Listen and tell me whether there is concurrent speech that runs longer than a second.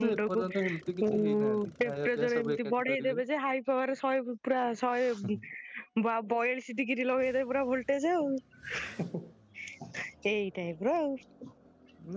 Yes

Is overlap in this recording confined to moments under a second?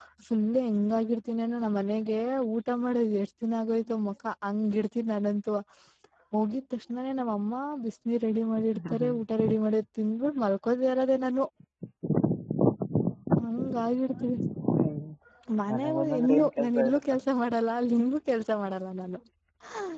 No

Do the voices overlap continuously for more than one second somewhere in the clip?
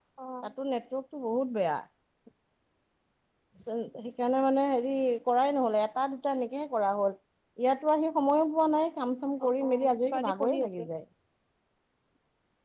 Yes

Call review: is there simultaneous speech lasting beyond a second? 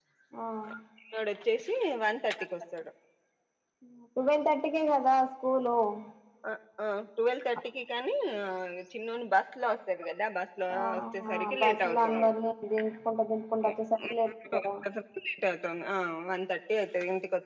Yes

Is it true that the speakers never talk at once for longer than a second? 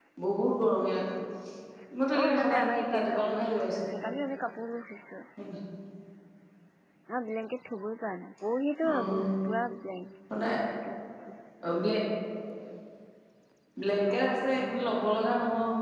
No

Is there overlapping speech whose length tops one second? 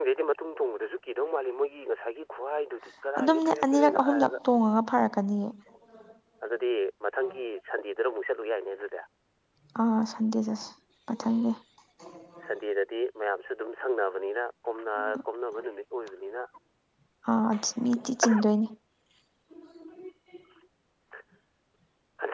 Yes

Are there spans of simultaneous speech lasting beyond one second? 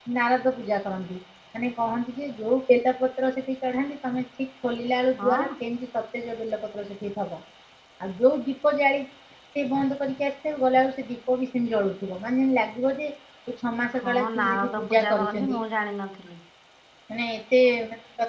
Yes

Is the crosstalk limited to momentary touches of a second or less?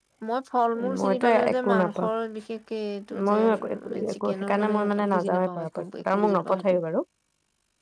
No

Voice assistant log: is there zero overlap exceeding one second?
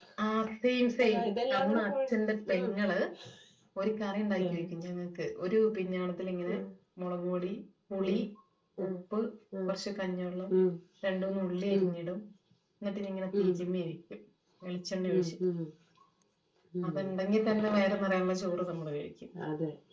Yes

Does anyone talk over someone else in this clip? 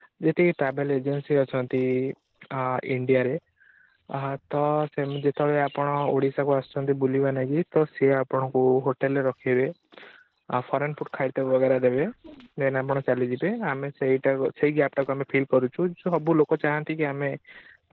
No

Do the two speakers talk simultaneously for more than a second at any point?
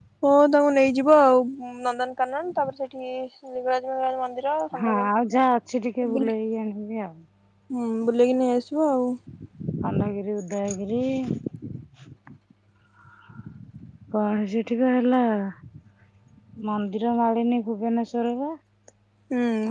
No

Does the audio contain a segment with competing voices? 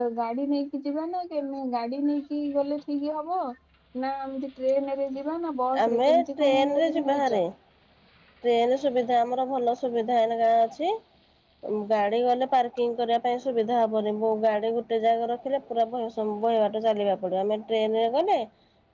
Yes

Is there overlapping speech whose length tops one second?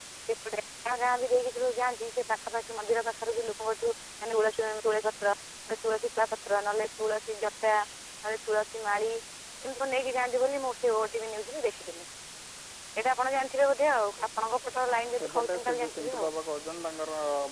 Yes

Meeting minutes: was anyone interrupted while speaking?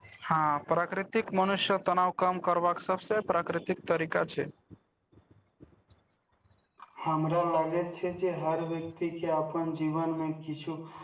No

